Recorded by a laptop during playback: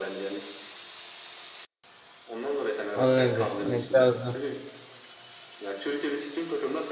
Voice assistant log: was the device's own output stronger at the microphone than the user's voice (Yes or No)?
No